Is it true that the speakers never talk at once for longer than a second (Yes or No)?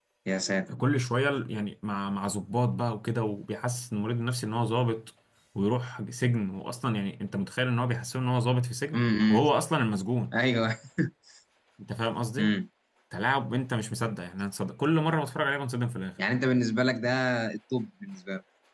Yes